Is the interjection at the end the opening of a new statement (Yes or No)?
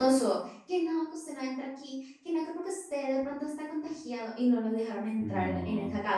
No